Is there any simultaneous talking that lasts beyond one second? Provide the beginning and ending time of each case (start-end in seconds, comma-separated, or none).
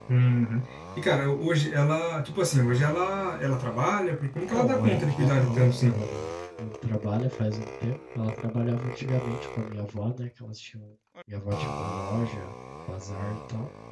4.5-6.0